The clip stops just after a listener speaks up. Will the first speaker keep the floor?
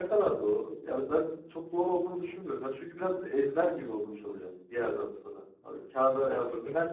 Yes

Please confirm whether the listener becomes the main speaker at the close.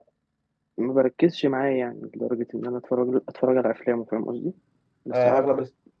Yes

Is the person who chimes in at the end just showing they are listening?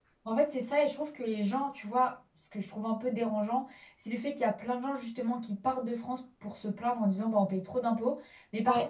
Yes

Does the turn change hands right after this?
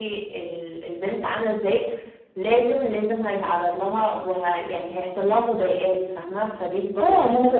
Yes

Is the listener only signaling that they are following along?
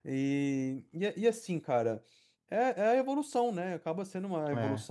Yes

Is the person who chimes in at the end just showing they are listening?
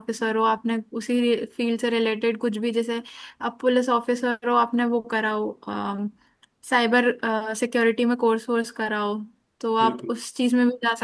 Yes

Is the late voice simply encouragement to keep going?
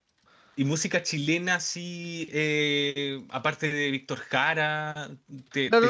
No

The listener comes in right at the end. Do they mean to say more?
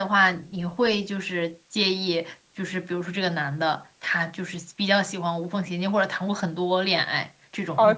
Yes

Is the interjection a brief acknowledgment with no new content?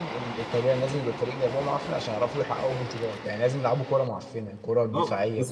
No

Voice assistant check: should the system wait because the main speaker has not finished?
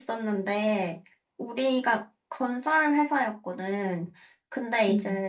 Yes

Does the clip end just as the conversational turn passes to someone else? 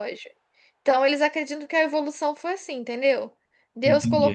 No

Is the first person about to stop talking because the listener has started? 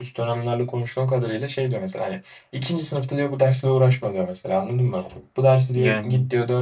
No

